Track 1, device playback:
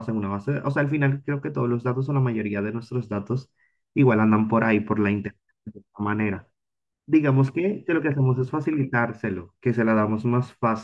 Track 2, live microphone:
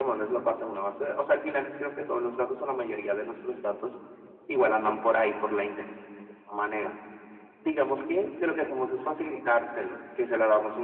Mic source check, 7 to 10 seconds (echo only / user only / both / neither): echo only